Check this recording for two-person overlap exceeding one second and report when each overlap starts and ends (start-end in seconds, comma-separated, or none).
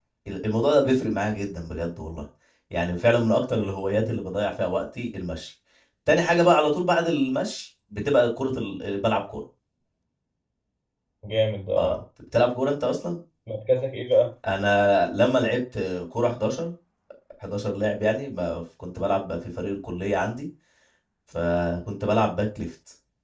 none